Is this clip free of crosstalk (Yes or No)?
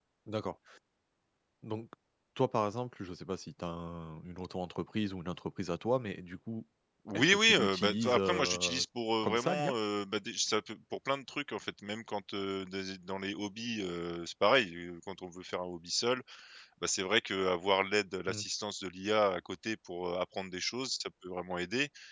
No